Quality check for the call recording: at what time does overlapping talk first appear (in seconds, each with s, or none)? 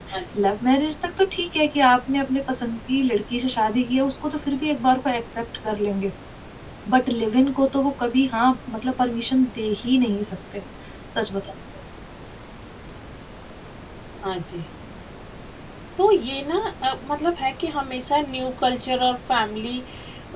none